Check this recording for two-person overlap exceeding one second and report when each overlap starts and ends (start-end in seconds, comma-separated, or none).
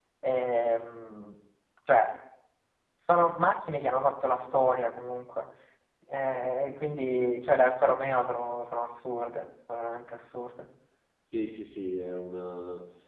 none